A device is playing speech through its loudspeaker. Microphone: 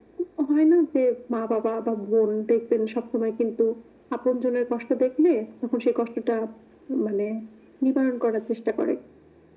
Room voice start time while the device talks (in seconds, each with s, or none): none